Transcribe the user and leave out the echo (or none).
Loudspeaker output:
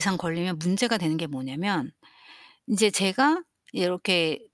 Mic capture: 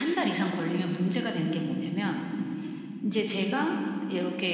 none